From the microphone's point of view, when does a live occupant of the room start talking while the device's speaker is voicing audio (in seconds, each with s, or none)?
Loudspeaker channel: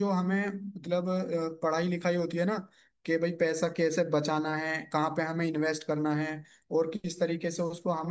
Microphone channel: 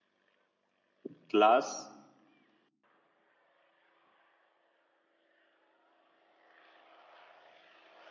1.1 s